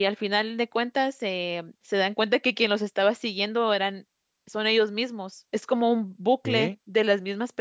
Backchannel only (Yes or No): Yes